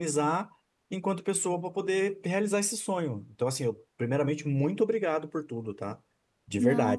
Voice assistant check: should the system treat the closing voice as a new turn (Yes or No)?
Yes